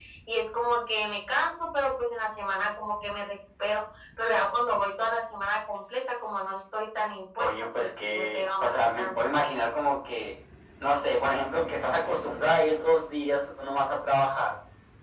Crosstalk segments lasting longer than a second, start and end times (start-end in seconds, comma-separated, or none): 7.4-9.4